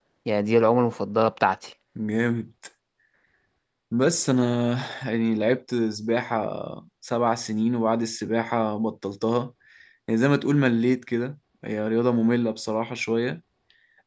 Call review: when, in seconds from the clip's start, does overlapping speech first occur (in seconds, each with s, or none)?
none